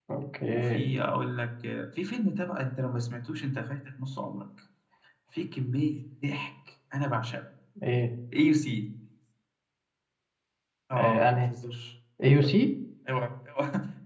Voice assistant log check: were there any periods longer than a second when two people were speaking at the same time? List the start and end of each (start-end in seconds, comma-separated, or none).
none